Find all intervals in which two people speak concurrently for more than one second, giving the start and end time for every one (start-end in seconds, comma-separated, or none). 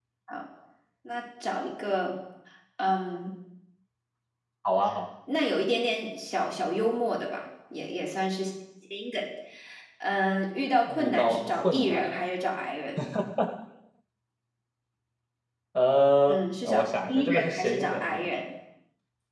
10.9-12.1, 16.3-18.3